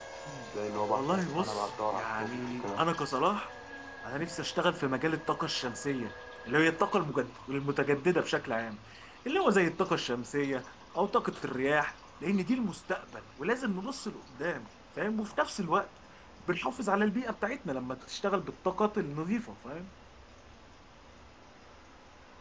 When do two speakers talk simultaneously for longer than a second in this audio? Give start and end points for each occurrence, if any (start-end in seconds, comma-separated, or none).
0.9-2.8